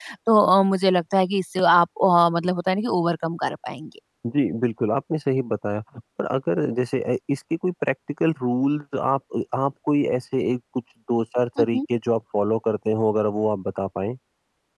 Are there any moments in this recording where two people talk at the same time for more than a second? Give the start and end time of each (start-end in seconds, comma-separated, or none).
none